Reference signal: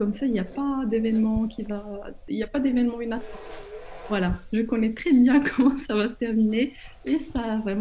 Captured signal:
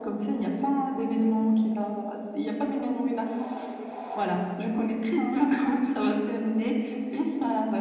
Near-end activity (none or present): none